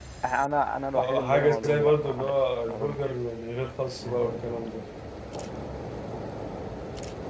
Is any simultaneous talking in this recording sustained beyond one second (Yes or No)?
Yes